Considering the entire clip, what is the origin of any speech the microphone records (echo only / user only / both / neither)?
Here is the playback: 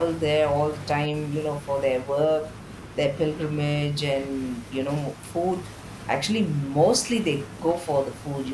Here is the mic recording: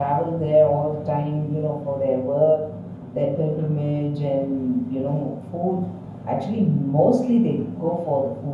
echo only